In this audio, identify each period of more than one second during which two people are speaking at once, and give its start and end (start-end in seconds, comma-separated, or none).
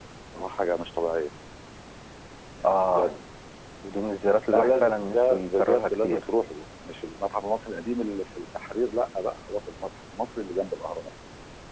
4.5-6.2